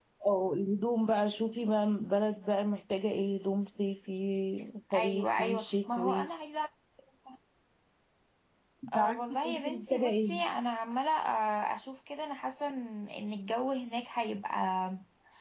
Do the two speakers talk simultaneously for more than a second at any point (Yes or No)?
Yes